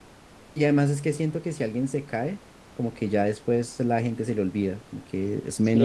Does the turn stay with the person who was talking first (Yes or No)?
No